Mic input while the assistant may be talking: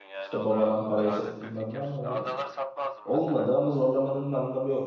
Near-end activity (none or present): present